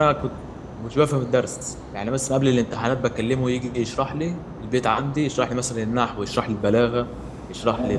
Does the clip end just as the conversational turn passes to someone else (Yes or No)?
No